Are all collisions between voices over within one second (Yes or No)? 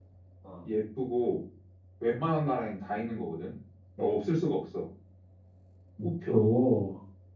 Yes